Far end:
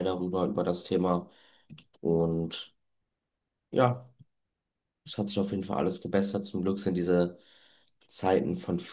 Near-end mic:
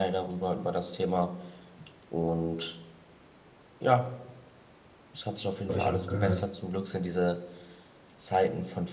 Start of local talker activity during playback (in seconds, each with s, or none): 5.7 s